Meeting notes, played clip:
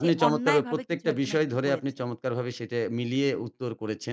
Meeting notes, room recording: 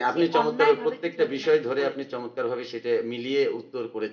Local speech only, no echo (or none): none